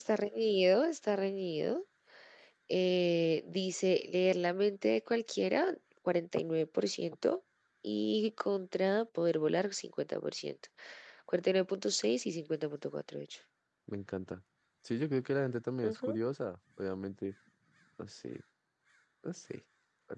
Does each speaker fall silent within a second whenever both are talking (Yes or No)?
Yes